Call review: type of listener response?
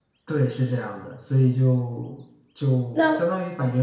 listening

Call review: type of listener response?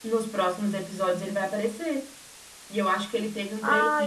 listening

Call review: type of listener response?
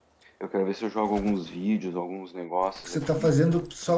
taking over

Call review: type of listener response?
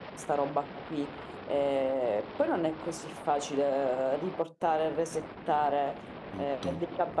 listening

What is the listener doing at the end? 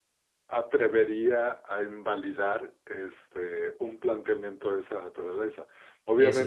listening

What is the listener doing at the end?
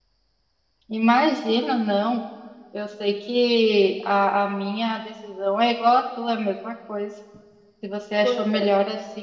listening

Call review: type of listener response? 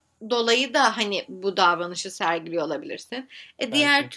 listening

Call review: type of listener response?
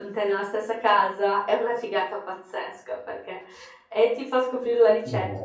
listening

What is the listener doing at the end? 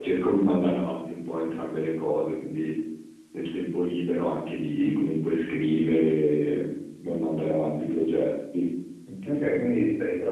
taking over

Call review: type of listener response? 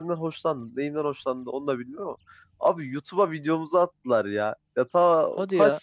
listening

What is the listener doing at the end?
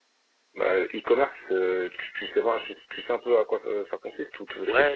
taking over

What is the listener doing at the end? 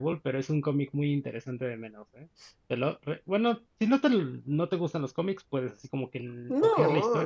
taking over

